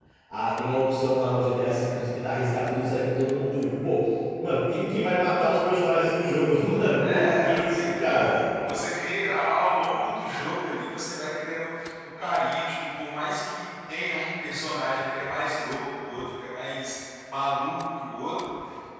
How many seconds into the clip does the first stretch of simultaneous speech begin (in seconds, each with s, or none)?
7.0 s